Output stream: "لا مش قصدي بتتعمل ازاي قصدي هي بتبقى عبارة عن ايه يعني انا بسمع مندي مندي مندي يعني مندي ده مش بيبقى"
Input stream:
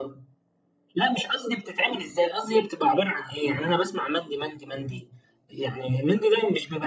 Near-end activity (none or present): none